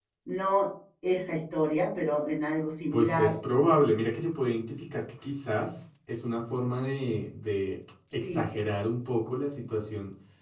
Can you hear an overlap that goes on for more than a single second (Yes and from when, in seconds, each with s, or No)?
No